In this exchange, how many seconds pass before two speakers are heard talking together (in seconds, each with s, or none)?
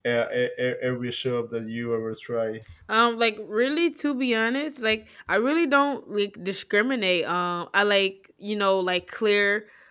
none